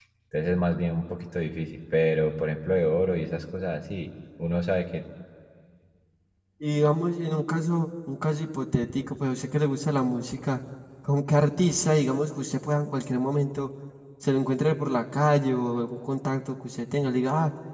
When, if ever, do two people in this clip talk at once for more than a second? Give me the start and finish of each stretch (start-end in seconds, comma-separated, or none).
none